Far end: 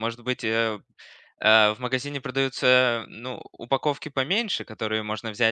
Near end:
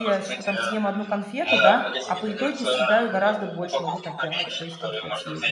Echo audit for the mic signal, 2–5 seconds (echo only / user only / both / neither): both